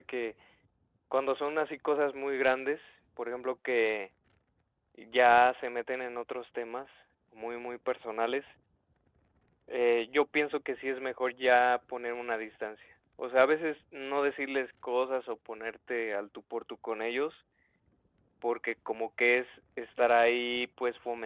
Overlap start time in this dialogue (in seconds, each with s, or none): none